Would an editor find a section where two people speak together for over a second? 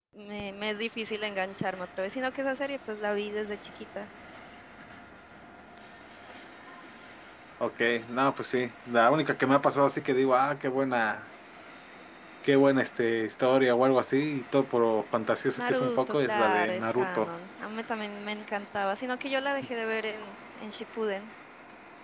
Yes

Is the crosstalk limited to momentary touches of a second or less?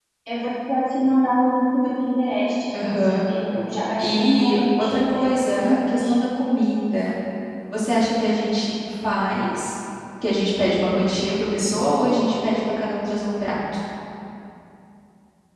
No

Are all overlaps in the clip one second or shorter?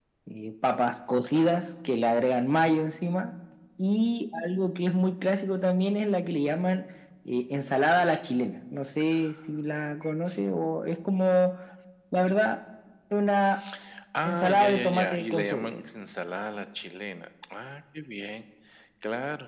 No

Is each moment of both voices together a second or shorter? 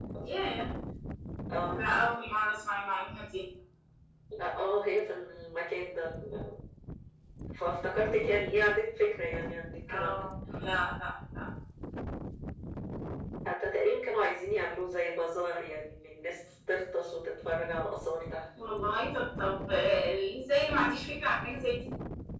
Yes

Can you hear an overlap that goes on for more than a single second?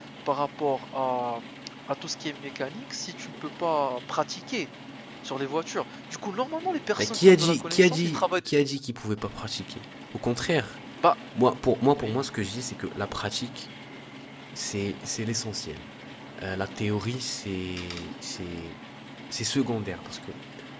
Yes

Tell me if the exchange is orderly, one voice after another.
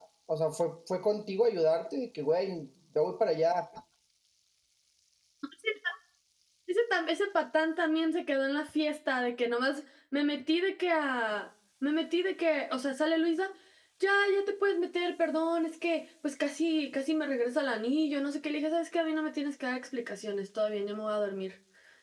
Yes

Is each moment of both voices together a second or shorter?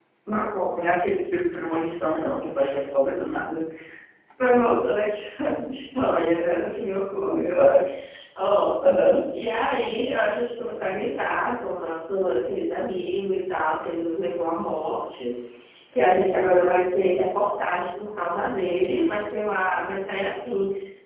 Yes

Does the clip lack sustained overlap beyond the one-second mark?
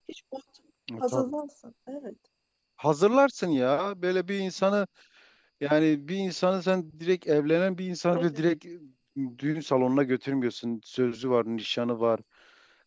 Yes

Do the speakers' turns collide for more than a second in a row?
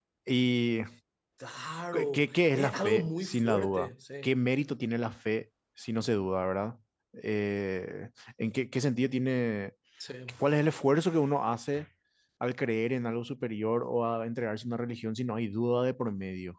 Yes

